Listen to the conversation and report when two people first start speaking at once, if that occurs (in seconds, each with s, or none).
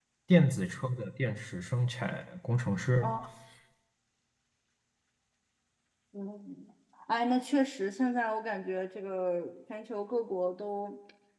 none